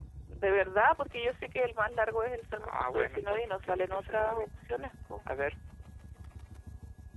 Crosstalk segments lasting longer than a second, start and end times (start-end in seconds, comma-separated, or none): 2.6-4.5